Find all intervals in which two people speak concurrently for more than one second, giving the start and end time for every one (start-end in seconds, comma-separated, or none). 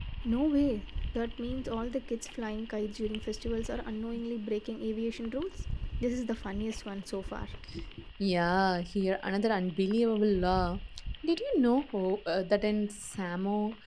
none